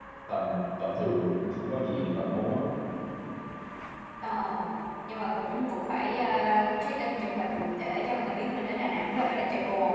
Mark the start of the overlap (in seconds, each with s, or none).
none